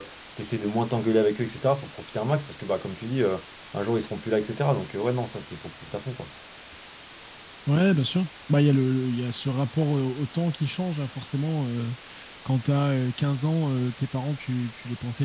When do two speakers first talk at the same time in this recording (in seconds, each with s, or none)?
none